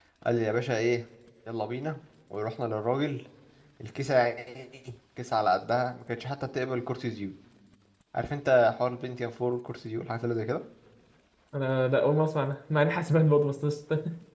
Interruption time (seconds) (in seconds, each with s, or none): none